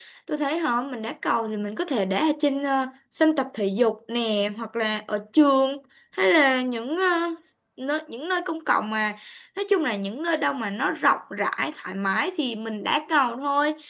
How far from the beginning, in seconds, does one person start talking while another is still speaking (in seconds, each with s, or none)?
none